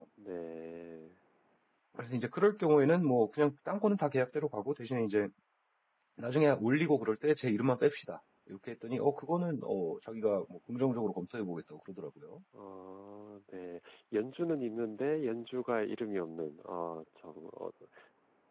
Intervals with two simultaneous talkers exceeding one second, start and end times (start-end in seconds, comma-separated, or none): none